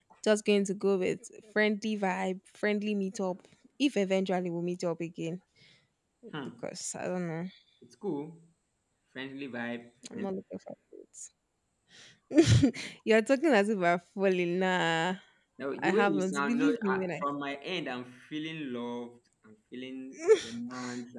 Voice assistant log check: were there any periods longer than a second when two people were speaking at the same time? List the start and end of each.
15.8-17.1

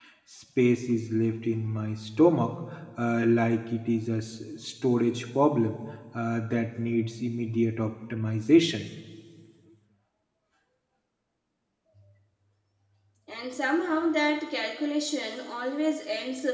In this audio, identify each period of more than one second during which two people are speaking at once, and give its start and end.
none

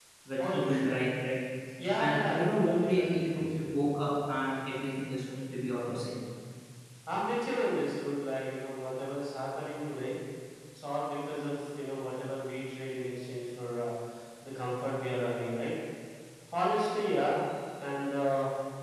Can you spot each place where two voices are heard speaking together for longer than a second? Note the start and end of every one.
2.0-3.8

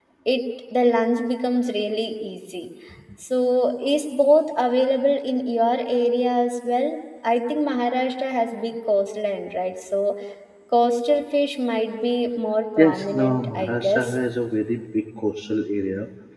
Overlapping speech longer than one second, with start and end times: 12.8-14.1

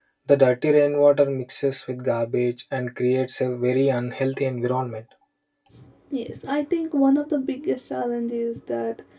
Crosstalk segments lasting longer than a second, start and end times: none

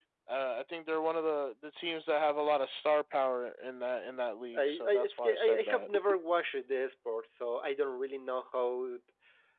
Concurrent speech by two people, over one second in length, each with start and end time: 4.6-5.9

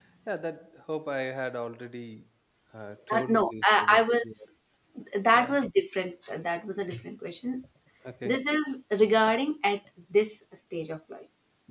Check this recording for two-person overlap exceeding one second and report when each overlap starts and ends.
3.1-4.3

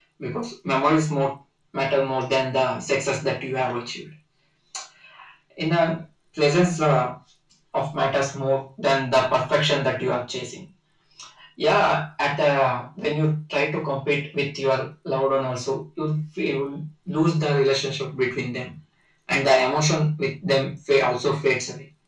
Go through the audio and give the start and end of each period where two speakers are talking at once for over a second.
none

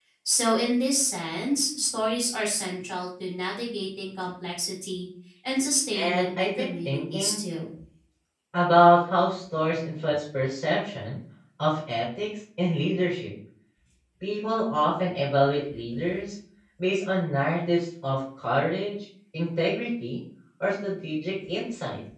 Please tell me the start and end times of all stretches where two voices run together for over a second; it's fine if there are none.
6.0-7.4

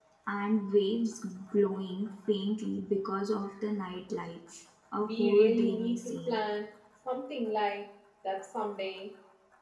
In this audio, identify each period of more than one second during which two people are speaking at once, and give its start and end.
5.0-6.4

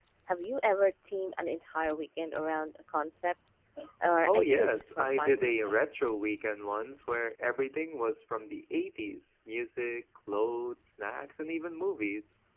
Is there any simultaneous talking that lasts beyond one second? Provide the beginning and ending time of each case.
4.3-5.5

